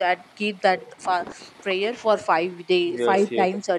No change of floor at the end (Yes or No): No